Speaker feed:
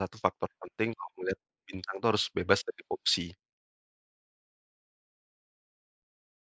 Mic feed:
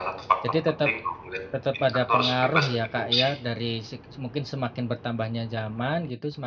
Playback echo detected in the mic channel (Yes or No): Yes